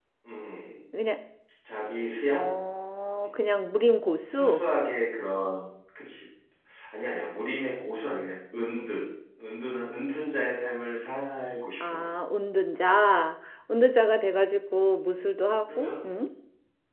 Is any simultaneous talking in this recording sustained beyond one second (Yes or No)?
No